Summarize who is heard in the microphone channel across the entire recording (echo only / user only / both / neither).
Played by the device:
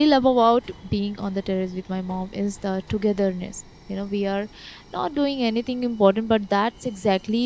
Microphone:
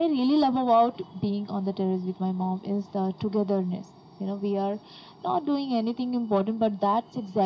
echo only